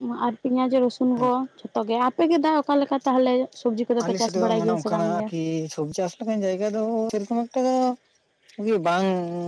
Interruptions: present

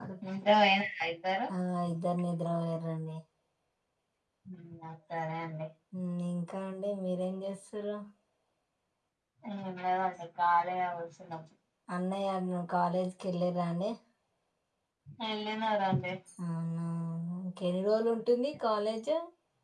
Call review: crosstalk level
none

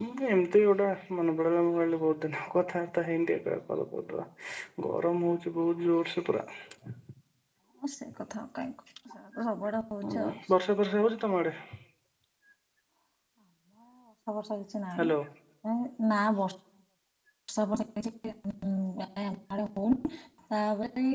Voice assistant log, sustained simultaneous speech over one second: none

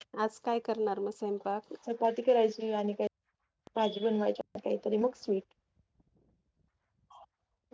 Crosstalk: none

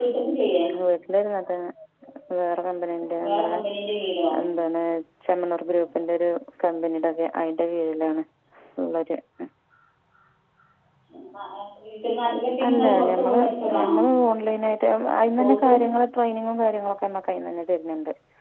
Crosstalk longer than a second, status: present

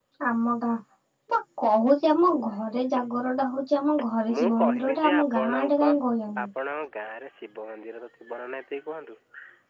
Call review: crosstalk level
present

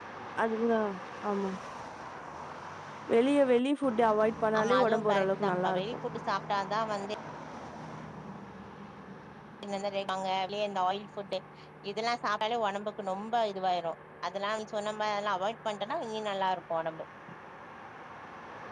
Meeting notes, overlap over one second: present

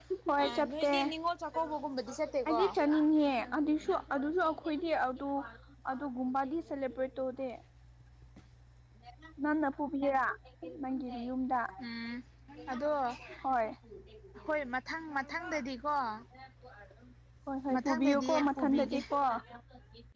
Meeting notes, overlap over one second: present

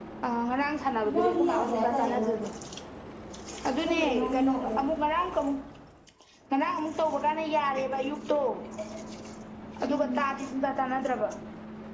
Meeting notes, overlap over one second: present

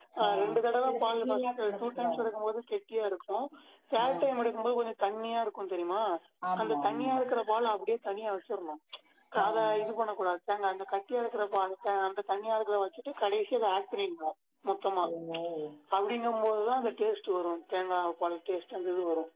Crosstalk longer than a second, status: present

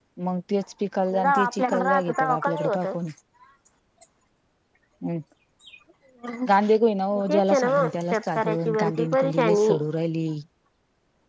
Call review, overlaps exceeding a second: present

